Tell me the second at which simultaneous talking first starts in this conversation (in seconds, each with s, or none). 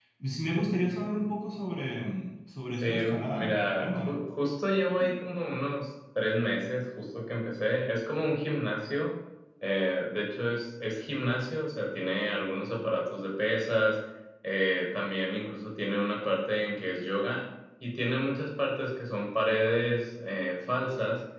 2.8 s